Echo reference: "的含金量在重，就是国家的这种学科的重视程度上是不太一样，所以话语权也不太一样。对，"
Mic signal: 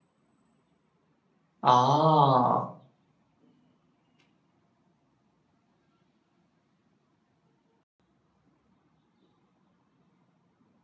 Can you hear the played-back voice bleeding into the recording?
No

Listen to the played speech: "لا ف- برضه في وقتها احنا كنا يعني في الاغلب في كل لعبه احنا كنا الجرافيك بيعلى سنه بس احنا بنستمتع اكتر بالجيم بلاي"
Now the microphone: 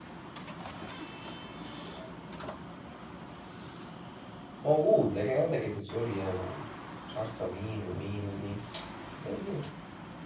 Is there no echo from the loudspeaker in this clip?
Yes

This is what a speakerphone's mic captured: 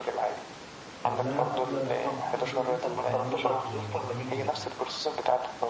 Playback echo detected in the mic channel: Yes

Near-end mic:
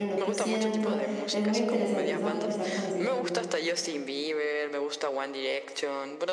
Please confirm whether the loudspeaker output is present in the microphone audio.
Yes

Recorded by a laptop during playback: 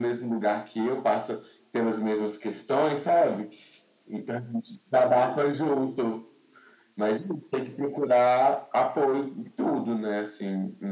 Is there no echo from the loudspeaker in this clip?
No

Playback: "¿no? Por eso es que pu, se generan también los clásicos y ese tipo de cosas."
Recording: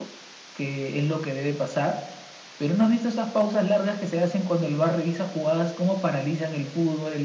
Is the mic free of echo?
Yes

